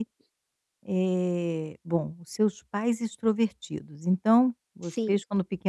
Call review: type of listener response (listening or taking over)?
listening